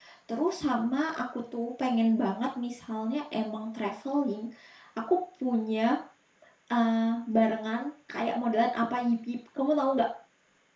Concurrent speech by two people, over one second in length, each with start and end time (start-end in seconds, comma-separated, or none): none